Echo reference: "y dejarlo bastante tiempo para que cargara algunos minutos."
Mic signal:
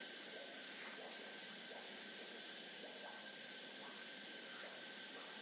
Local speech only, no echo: none

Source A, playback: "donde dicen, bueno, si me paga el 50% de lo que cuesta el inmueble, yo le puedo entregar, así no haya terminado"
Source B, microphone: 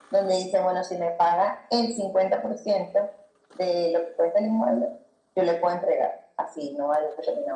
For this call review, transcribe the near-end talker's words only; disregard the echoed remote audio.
none

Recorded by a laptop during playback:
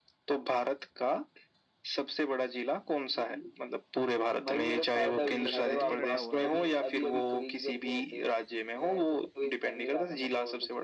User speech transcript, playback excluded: मुझे लग रहा है ये रटा हुआ है

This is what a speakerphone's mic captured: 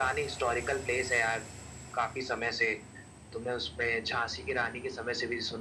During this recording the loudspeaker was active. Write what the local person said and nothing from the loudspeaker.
none

